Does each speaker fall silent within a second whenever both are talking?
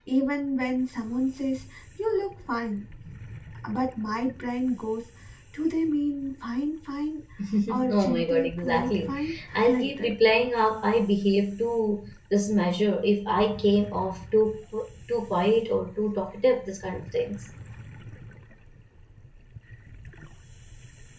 No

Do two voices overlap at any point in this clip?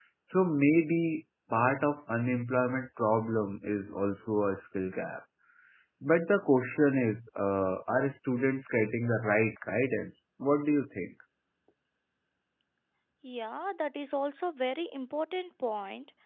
No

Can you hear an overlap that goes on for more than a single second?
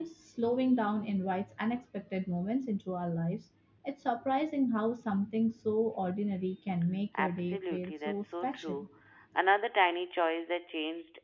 Yes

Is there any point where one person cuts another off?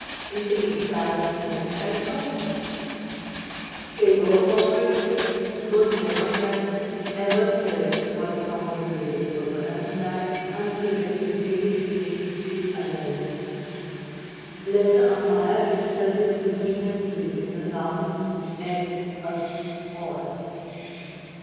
No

